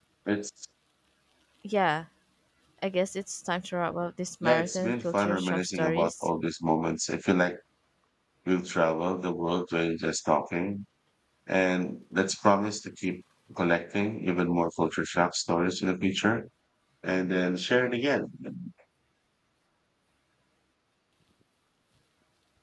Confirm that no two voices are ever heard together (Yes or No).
No